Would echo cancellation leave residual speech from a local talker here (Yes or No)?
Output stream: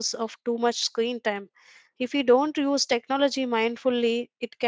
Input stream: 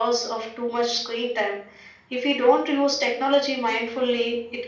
No